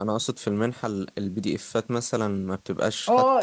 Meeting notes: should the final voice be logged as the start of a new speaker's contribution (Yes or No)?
Yes